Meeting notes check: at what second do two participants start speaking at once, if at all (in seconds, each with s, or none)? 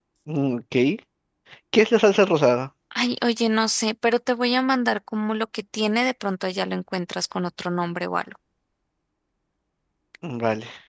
none